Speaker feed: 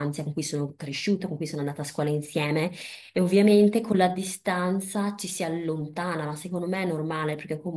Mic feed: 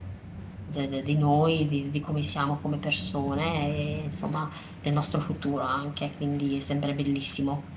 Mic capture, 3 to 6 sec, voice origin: user only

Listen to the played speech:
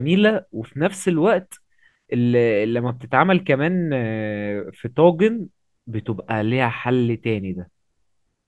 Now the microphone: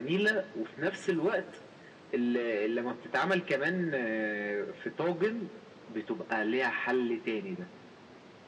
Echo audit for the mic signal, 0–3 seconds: echo only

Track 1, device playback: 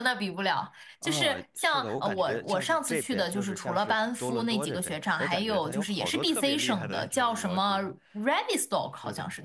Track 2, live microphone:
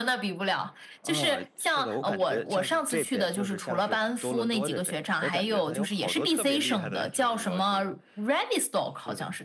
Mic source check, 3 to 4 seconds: echo only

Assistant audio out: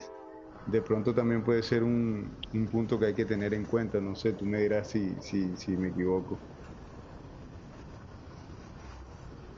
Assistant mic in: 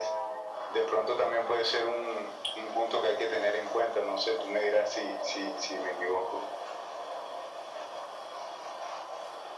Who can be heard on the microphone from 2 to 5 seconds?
echo only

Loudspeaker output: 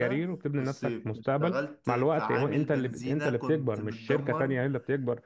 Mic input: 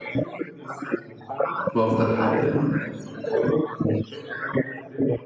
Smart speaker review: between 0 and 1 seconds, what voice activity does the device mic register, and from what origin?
echo only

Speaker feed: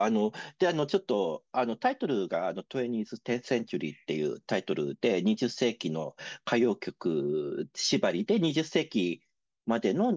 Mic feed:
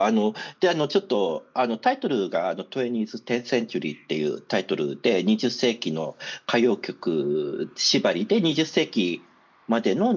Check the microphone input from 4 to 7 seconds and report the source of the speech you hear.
echo only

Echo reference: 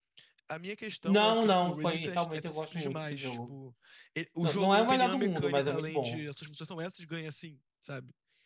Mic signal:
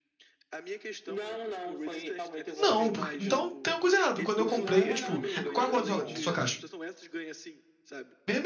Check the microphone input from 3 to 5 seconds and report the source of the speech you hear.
both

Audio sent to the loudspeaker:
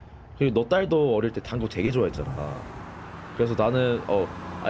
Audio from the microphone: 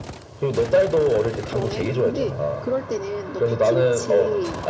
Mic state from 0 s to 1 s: echo only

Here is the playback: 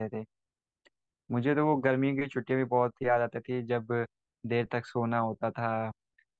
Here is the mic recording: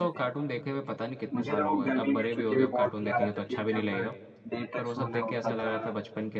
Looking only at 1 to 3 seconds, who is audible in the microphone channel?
both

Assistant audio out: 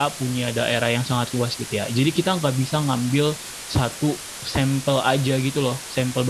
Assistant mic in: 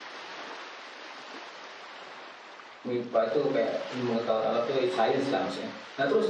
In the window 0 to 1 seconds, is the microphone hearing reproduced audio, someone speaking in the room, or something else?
neither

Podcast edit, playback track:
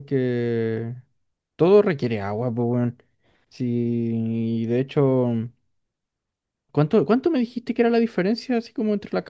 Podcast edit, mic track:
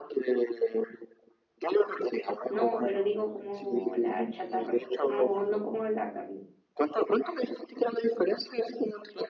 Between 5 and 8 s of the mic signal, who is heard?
both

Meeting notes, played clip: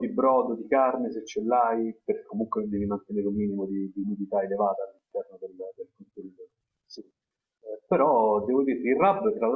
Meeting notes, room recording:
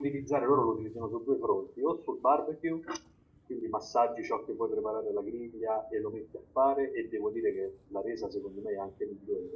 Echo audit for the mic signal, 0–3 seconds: user only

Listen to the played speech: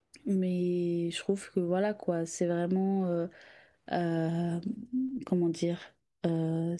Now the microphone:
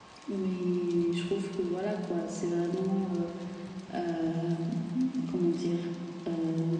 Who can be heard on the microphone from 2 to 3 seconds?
echo only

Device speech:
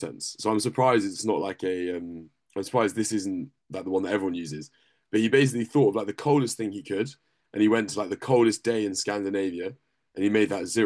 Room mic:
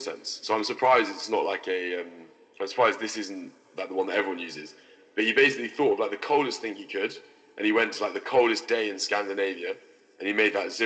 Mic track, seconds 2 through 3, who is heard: echo only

